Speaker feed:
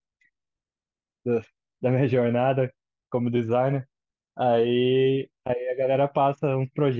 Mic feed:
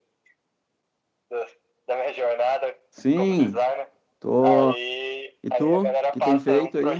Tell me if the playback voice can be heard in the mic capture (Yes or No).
Yes